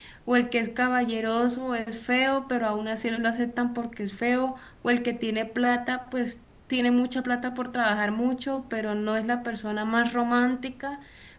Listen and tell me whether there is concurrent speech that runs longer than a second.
No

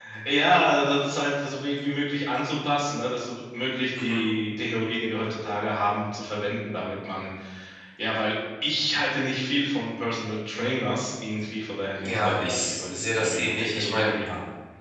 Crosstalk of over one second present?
Yes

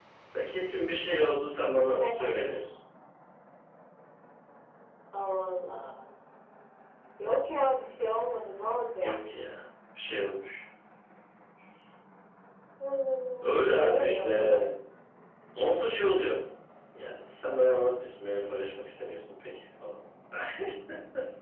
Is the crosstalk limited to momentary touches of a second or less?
No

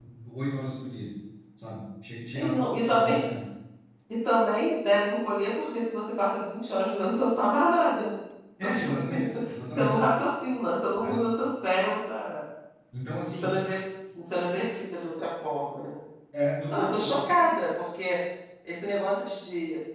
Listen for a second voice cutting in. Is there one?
Yes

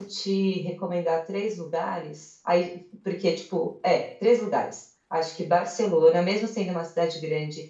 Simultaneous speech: No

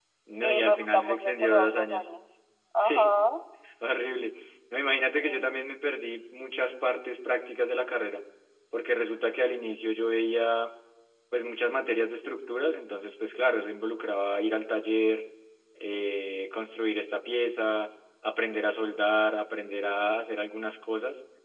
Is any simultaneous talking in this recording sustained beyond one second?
Yes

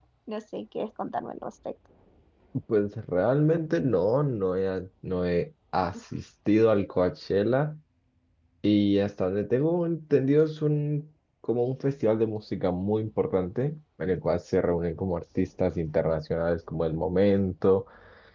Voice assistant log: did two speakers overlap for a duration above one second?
No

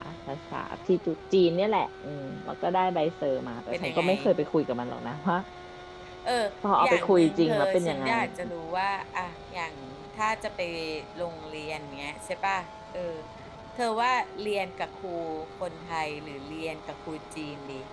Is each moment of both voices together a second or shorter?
No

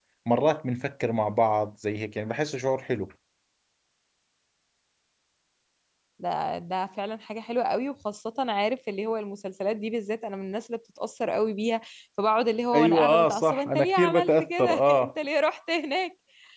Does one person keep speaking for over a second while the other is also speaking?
Yes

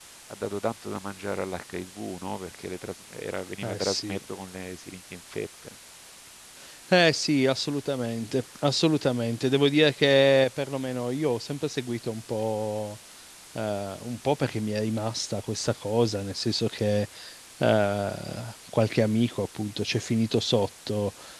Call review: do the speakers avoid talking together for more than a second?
Yes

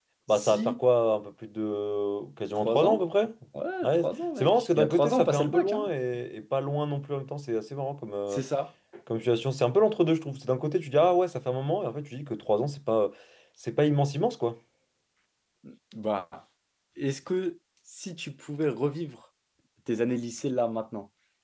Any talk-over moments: Yes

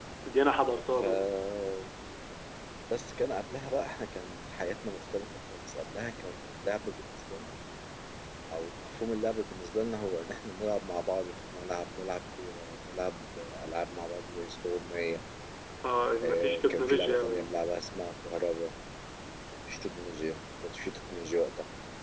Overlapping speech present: Yes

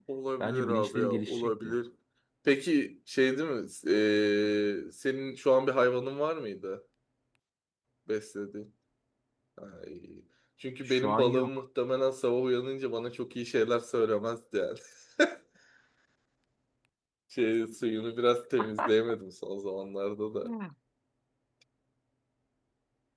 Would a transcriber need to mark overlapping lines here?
Yes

